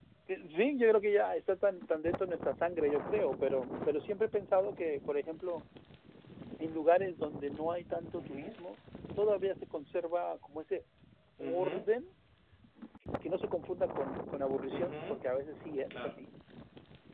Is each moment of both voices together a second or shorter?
Yes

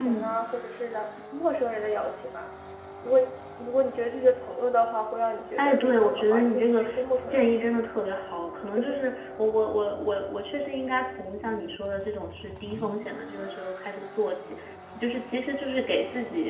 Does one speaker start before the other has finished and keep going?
Yes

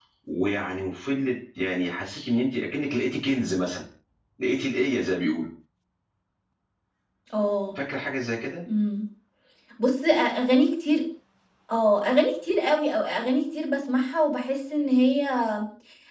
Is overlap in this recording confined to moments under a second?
Yes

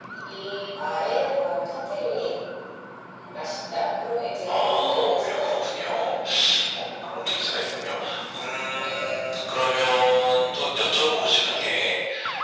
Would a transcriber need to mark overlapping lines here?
Yes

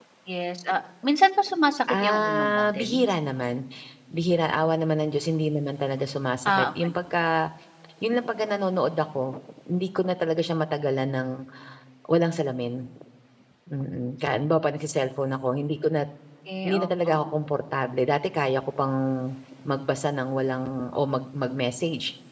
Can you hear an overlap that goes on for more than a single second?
Yes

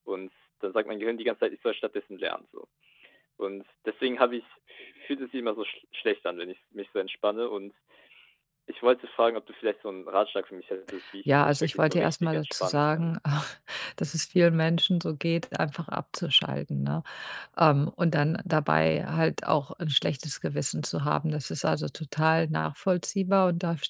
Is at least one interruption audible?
Yes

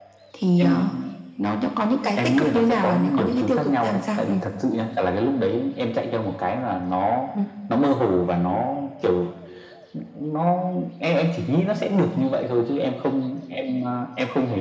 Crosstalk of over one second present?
Yes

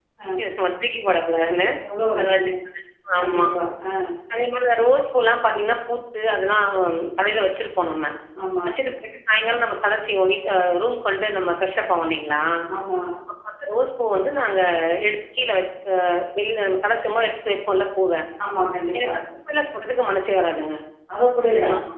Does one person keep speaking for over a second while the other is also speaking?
No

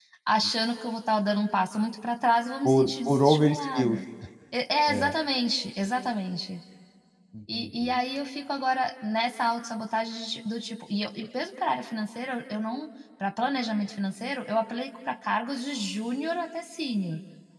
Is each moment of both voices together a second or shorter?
No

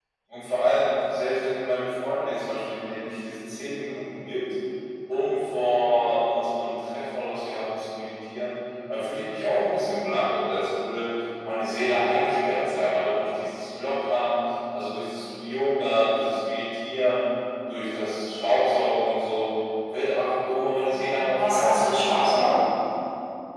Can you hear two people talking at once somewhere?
Yes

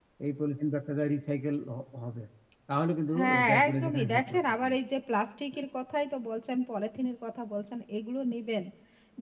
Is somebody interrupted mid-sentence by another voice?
Yes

